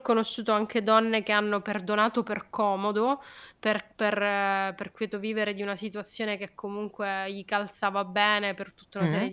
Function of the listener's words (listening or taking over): listening